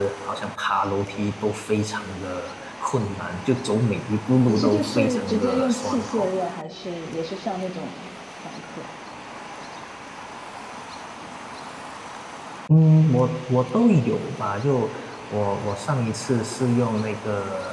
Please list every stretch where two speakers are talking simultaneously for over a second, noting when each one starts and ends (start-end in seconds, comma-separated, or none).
4.5-6.3